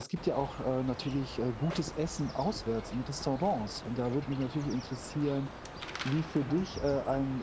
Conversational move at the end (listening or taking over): listening